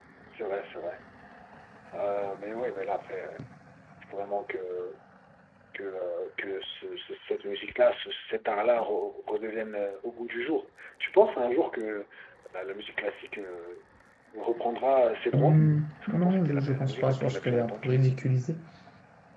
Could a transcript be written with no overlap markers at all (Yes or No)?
No